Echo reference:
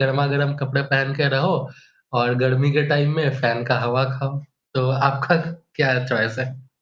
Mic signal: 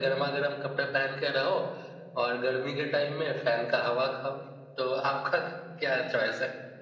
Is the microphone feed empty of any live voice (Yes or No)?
Yes